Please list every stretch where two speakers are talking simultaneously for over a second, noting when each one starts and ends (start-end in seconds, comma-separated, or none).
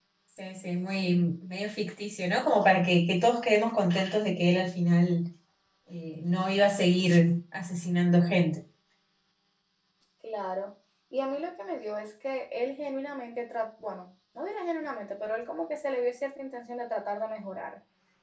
none